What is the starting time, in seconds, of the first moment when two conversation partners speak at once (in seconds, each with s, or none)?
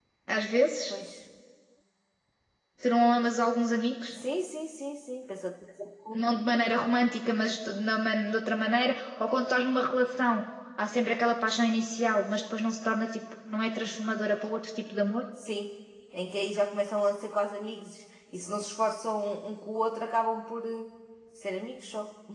none